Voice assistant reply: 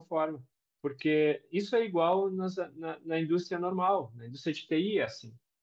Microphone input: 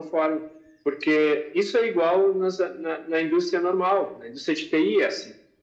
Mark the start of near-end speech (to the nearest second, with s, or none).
none